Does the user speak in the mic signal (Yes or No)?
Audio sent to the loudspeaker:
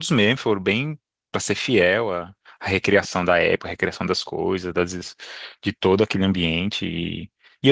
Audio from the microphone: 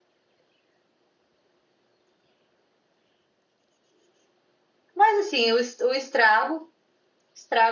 Yes